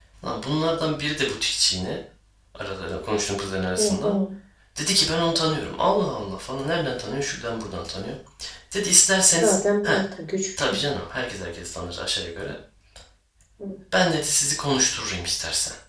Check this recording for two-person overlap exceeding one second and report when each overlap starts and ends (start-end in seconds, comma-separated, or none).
none